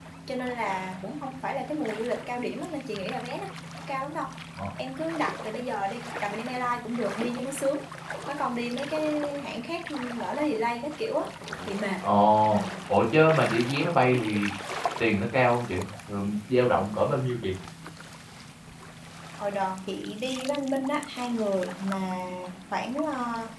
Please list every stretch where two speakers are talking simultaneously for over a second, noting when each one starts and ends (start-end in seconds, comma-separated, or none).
none